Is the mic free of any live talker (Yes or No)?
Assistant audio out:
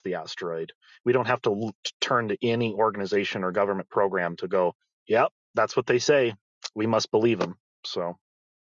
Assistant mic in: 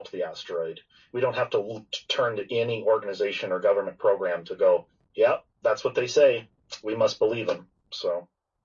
Yes